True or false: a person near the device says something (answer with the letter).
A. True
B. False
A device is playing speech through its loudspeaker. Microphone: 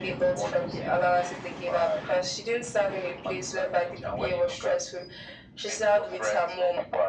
B